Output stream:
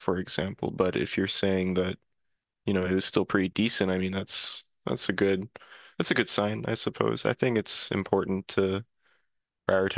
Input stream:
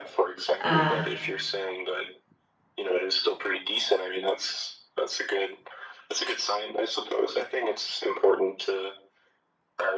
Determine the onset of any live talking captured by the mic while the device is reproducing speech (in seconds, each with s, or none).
0.6 s